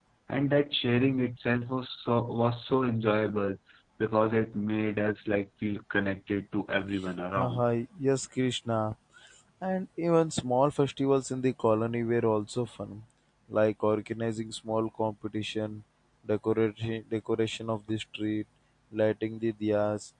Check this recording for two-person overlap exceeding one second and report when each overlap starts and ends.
none

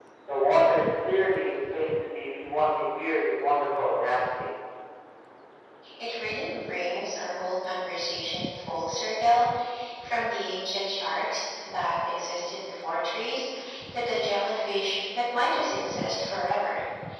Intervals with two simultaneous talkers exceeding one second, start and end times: none

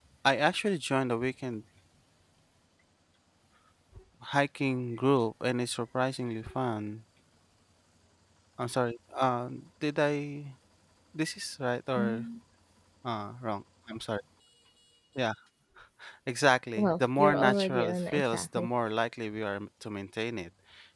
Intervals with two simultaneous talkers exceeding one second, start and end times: 16.8-18.7

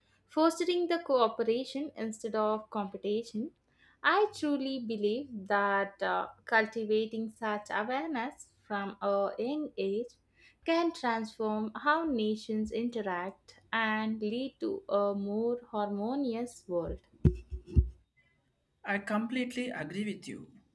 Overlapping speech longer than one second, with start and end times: none

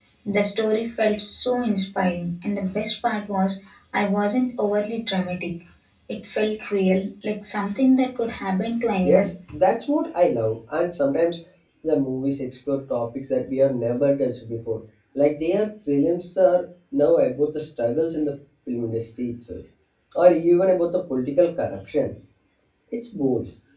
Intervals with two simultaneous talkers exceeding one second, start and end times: none

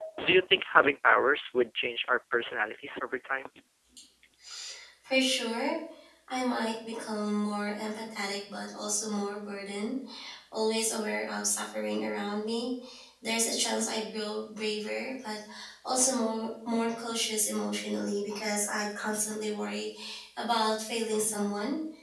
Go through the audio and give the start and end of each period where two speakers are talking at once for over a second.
none

